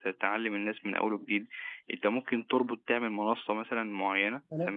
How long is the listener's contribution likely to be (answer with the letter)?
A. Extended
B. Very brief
A